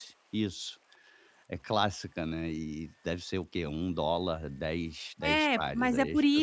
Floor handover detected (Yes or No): Yes